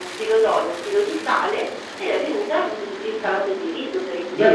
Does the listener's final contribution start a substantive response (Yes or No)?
Yes